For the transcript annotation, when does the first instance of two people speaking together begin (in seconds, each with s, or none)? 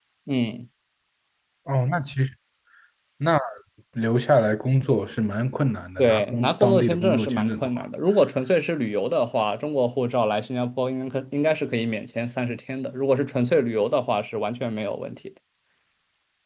6.0 s